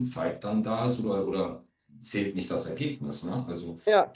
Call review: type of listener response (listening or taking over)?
listening